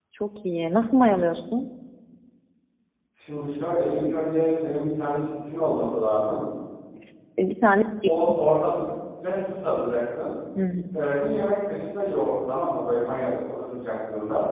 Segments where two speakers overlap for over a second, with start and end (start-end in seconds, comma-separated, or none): none